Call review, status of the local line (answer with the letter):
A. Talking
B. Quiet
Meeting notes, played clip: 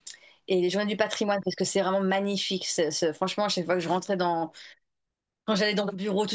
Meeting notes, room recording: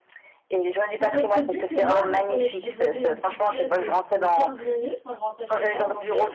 A